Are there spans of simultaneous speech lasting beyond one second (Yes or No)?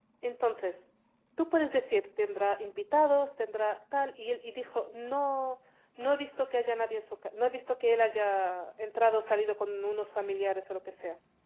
No